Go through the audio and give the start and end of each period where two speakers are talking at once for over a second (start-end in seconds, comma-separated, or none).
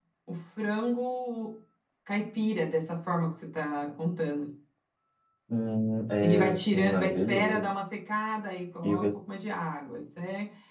6.2-7.7